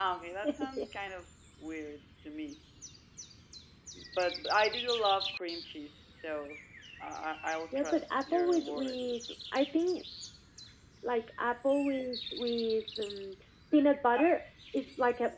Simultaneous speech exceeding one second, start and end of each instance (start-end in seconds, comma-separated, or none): 7.7-9.0